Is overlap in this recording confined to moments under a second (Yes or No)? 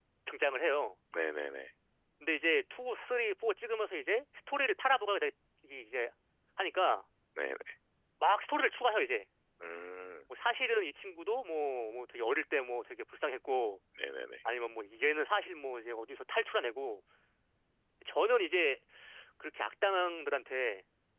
Yes